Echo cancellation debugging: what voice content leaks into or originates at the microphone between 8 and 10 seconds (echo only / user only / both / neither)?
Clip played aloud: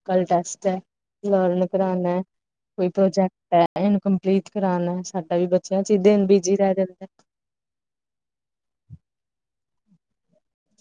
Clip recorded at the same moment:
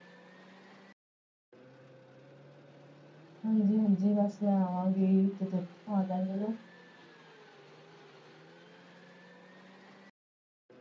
neither